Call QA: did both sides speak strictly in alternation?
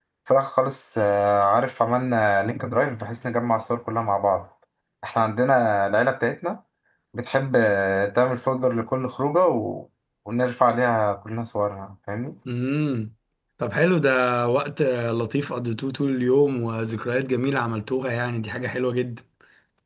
Yes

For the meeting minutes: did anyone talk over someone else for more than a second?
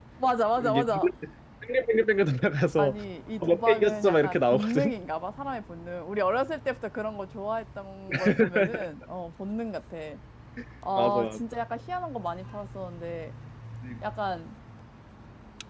Yes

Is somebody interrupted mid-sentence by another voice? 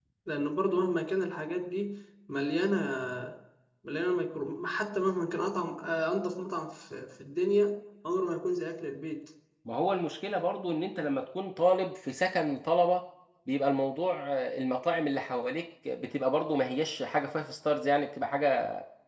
No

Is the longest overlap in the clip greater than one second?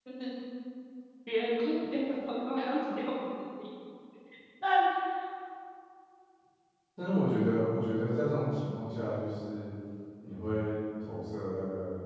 No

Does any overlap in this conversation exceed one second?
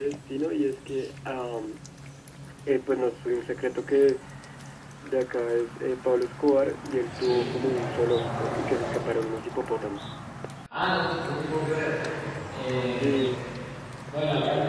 No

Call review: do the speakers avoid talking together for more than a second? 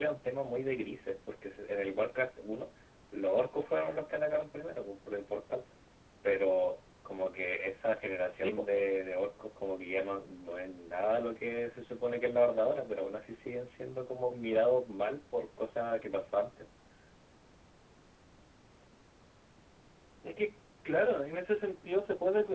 Yes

